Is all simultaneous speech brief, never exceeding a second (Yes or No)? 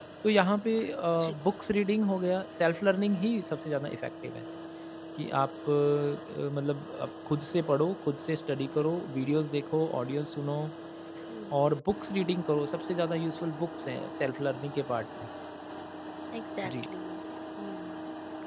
Yes